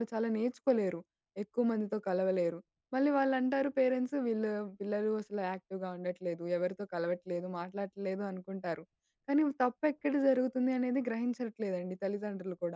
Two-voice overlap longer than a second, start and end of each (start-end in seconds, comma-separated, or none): none